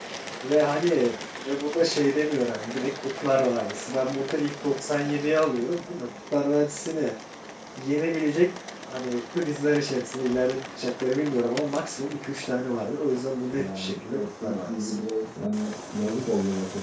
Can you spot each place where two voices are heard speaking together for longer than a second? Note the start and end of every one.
13.6-15.0

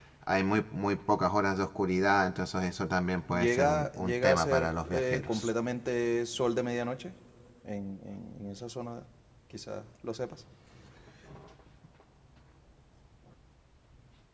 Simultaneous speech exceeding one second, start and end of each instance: 3.4-5.5

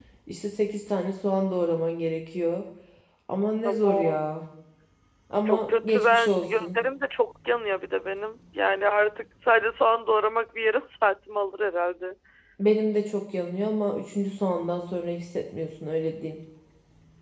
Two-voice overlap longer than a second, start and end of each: 5.4-6.8

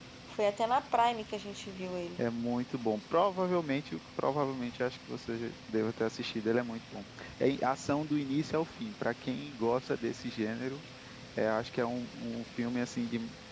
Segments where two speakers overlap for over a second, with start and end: none

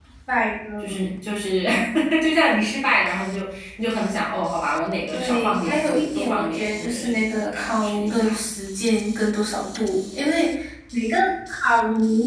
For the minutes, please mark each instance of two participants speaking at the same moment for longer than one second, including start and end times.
5.1-8.4

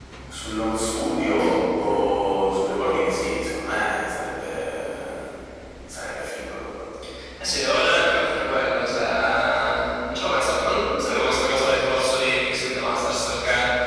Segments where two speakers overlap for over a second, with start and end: none

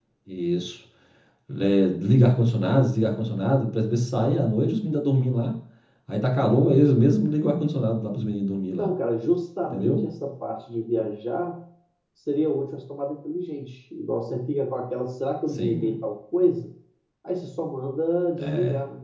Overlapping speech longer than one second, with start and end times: none

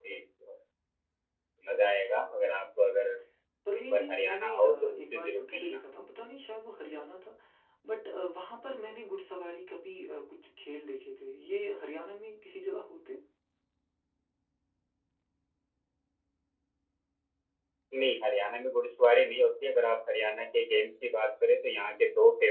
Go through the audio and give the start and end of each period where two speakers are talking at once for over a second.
3.8-5.8

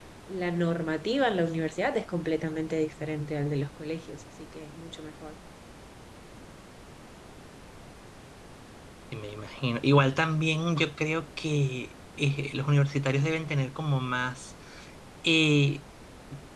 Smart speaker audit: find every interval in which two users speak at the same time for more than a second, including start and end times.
none

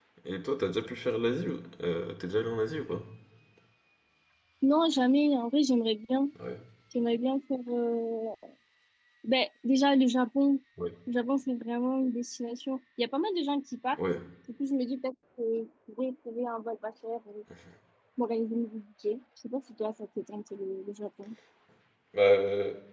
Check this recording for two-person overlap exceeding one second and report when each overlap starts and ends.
none

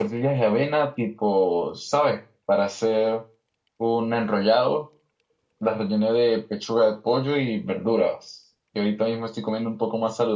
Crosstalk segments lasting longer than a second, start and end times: none

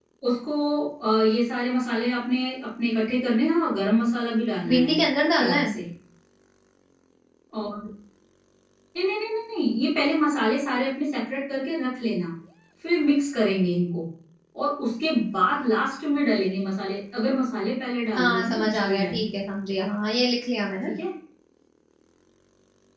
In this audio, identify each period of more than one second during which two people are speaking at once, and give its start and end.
18.2-19.4

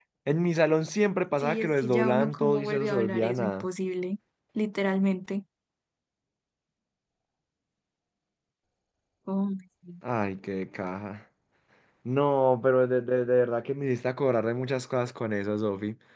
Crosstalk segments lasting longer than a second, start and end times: 1.4-3.7

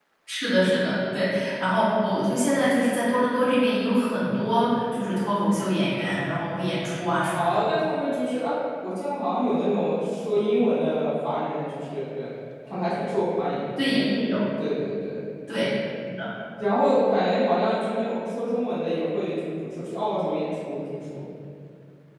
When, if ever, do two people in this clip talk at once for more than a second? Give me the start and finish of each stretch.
none

